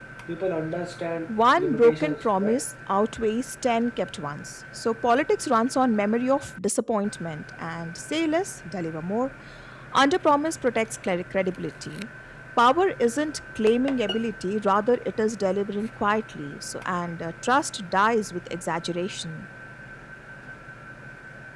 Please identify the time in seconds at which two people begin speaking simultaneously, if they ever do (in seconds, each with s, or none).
1.3 s